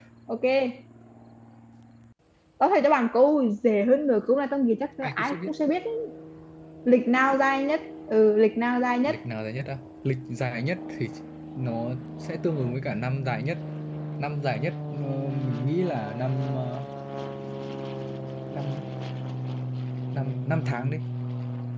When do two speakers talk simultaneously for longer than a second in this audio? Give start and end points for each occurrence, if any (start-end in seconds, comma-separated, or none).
none